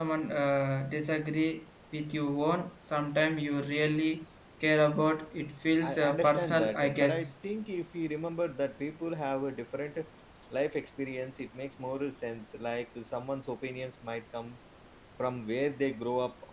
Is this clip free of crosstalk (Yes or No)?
No